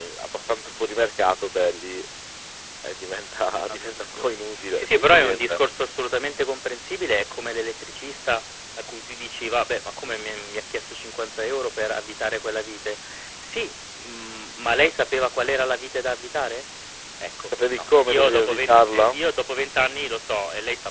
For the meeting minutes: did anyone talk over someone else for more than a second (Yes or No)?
Yes